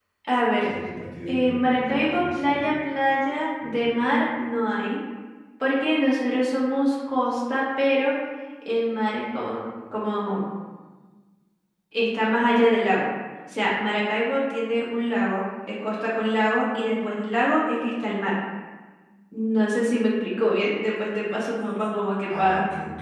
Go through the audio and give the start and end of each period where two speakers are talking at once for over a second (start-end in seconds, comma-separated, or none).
1.3-2.7